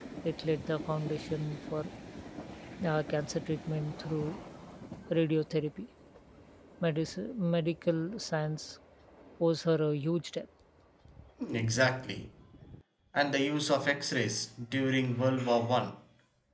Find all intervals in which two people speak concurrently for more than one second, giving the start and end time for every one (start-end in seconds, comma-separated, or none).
none